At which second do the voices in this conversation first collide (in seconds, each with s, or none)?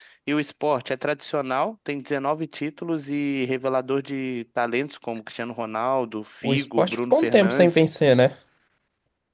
6.4 s